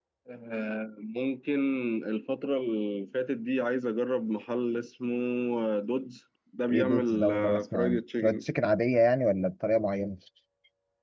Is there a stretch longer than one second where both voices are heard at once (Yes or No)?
Yes